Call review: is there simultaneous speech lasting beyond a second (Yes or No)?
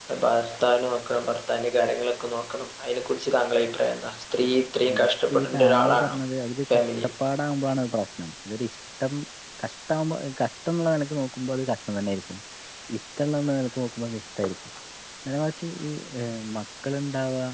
Yes